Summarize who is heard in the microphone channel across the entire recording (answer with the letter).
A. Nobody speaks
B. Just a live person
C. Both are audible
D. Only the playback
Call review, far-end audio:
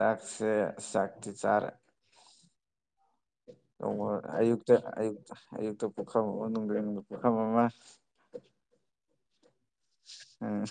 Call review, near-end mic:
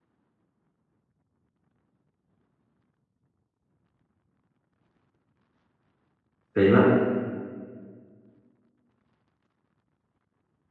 B